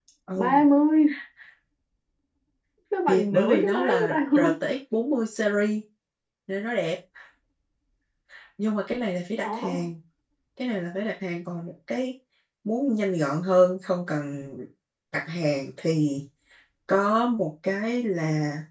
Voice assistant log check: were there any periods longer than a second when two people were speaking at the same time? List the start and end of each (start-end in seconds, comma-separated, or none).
3.1-4.5